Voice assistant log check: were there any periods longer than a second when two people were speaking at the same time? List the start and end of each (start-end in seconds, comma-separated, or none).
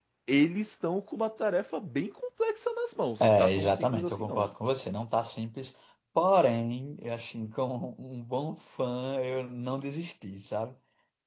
3.2-4.5